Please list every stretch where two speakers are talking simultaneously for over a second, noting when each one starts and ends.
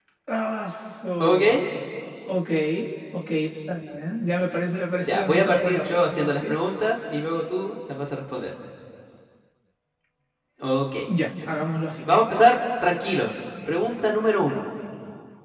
5.0-6.5

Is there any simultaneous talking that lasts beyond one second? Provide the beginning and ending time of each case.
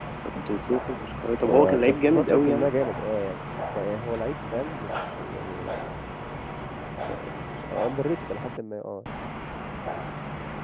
1.5-2.7

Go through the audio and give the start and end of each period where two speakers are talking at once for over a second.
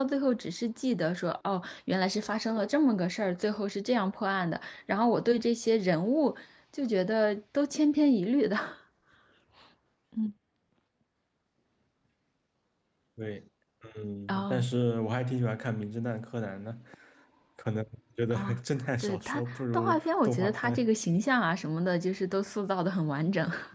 19.0-20.9

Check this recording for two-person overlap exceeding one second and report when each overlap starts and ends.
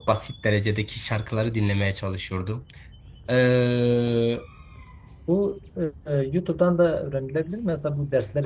none

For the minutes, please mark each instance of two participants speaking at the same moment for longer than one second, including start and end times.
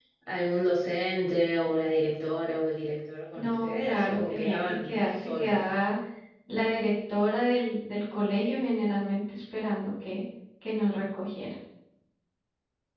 3.4-5.6

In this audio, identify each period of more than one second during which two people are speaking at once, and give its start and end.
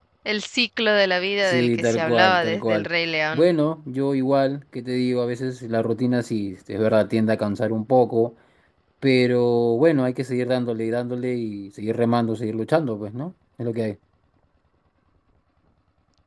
1.4-2.9

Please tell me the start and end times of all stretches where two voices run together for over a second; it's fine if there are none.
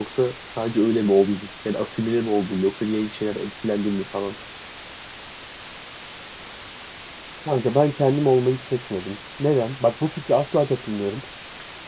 none

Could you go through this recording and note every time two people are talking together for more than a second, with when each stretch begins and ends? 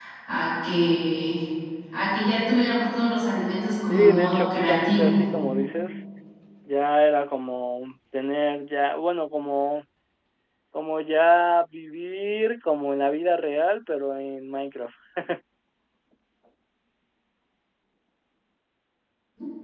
3.9-5.2

